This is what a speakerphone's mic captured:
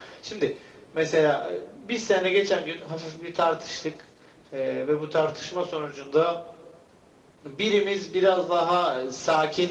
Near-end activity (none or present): none